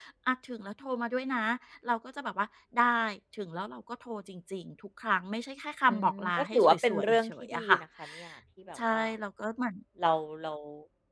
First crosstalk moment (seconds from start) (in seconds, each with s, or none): 5.9 s